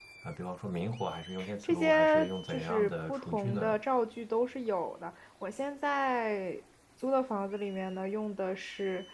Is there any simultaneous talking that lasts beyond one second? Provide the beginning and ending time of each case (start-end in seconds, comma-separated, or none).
1.6-3.8